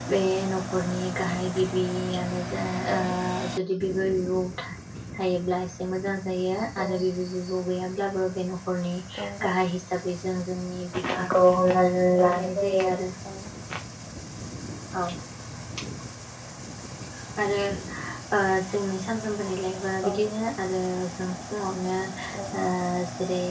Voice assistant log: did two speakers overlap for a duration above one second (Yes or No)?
Yes